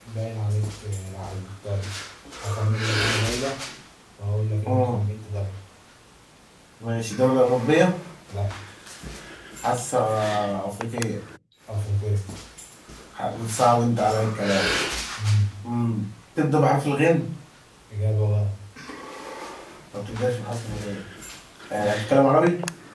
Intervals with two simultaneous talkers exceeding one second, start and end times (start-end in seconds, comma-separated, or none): none